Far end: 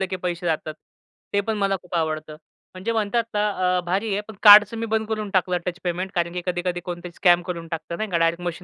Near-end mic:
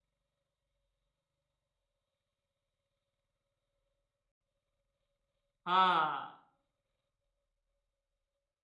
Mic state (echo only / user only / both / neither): user only